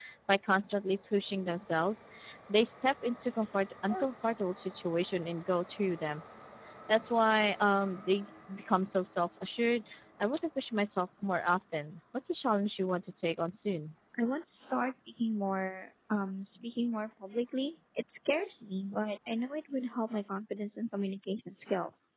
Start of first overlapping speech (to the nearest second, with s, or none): none